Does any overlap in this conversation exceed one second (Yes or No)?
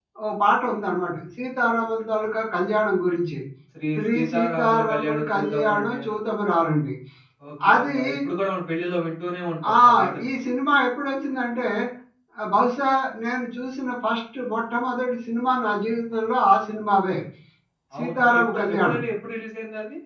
Yes